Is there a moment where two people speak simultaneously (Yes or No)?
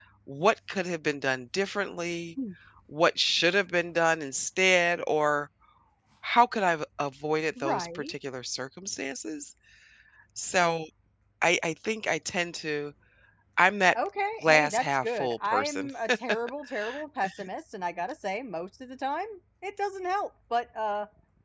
Yes